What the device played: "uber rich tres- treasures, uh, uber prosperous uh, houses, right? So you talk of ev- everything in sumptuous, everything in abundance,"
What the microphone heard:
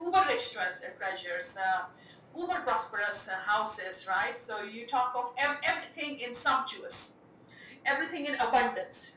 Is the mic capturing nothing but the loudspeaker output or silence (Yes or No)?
Yes